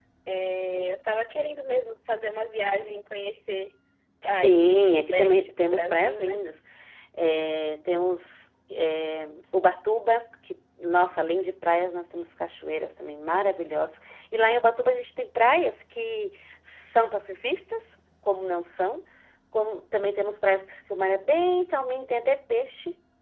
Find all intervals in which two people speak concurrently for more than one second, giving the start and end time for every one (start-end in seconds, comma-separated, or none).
4.2-6.4